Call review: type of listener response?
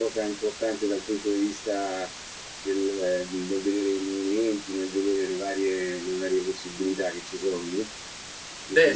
taking over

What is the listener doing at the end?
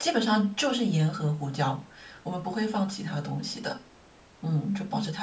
taking over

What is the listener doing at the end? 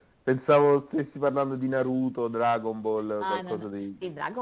taking over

